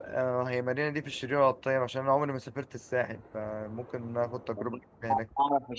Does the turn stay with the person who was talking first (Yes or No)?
No